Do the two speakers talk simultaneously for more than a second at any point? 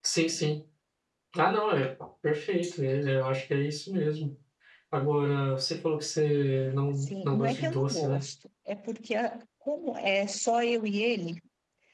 Yes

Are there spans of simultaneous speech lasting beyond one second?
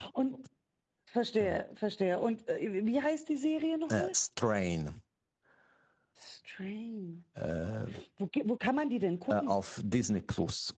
No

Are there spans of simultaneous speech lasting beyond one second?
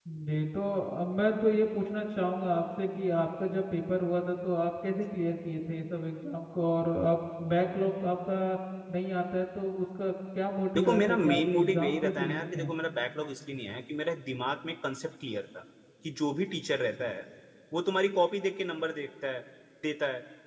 Yes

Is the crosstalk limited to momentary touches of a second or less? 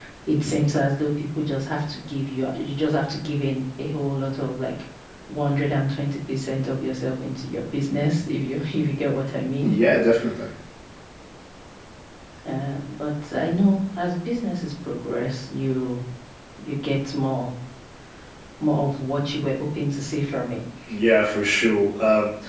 Yes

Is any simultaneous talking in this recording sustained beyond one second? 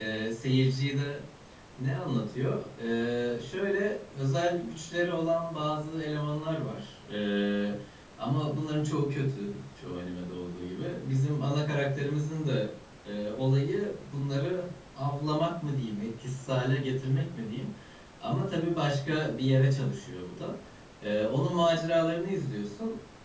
No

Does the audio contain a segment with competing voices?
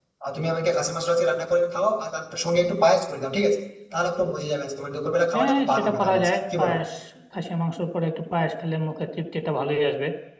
Yes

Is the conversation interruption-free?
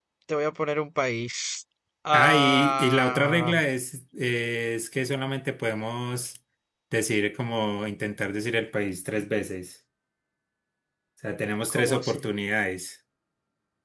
No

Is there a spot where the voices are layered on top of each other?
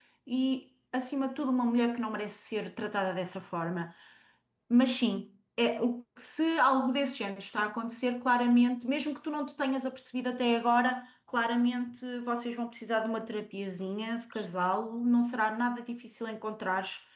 No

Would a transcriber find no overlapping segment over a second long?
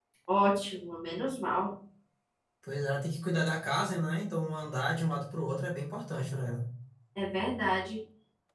Yes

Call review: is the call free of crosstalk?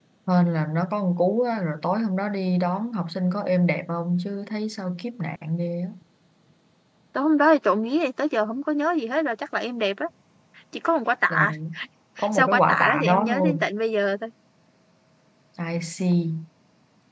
No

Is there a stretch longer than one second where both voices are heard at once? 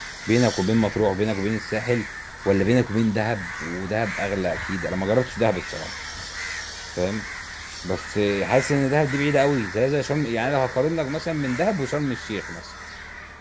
No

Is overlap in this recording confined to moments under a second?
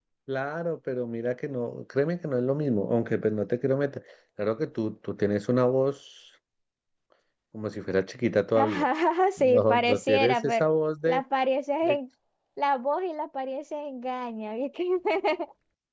No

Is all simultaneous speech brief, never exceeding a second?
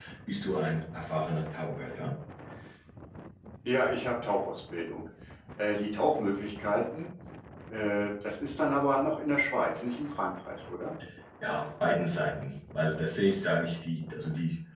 Yes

